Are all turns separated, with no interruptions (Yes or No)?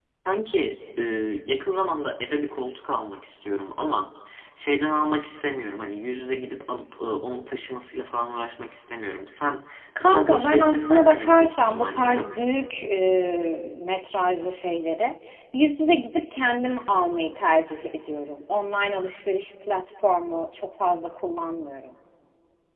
No